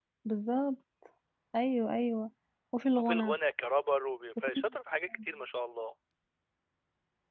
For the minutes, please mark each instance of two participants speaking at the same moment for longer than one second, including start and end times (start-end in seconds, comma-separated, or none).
none